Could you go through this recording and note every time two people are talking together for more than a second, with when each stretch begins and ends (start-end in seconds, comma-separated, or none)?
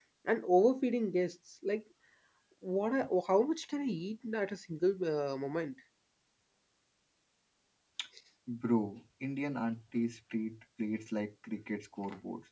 none